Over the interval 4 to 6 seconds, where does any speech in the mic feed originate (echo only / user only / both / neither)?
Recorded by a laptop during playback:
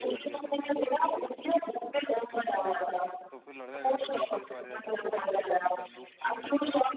both